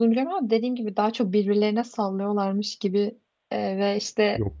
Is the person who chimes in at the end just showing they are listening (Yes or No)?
Yes